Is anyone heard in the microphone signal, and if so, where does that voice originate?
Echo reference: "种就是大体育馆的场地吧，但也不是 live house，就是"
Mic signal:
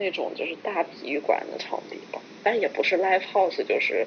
echo only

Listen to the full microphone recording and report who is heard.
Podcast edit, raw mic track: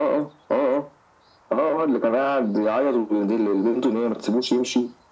echo only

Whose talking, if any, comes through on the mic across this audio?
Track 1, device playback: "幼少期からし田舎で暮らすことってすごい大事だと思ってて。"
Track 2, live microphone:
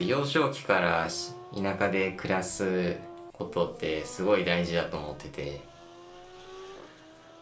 echo only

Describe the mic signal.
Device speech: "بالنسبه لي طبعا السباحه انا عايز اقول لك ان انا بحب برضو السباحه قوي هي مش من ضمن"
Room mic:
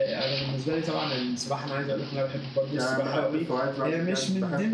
both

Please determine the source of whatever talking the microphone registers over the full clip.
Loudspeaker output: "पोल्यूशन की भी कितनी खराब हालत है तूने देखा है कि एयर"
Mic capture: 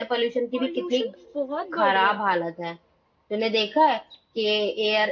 both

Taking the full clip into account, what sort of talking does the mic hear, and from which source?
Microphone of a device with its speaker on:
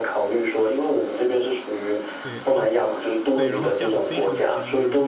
both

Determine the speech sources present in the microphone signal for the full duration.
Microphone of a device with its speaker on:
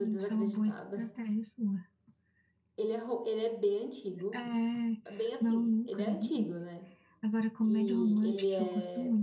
both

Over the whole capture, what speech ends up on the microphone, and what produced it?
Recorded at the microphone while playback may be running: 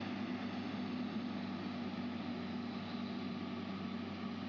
neither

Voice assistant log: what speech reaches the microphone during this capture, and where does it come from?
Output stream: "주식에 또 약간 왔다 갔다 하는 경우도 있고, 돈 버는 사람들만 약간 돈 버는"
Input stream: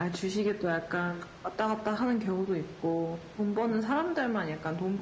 echo only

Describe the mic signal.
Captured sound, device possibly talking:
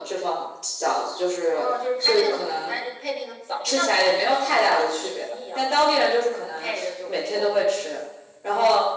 echo only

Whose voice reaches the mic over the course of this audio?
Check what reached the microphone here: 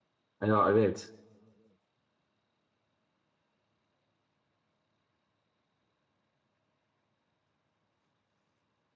user only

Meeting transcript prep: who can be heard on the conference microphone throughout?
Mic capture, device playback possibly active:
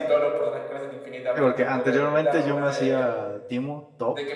both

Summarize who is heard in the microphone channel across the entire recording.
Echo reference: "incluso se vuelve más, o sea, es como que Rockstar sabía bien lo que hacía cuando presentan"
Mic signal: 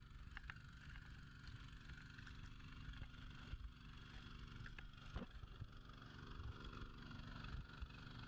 neither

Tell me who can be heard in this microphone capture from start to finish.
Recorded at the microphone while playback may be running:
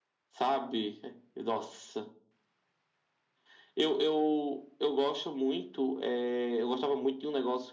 echo only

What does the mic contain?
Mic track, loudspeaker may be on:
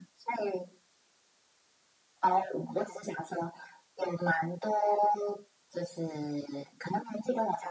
echo only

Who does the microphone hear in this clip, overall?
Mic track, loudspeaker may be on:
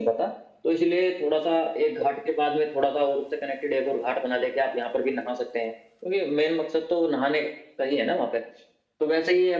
echo only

